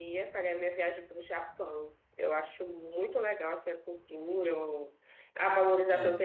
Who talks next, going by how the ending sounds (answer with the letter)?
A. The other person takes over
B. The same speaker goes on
B